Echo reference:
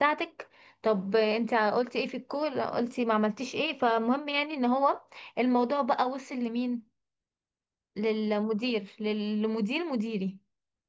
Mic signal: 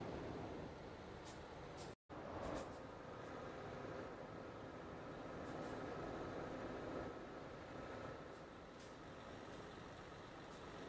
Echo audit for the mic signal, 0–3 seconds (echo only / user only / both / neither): neither